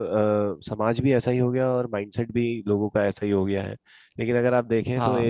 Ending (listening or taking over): listening